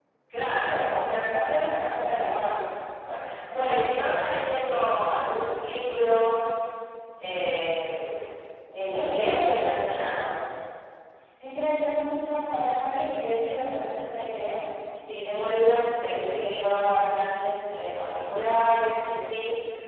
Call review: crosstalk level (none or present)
present